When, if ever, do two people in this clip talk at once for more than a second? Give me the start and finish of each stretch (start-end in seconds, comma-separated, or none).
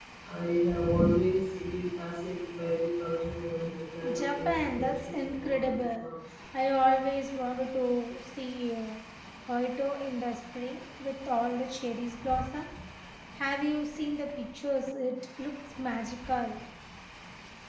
4.1-6.1